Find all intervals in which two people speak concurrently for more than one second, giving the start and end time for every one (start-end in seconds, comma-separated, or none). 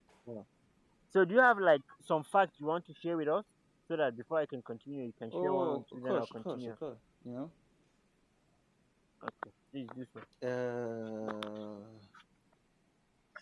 5.4-6.7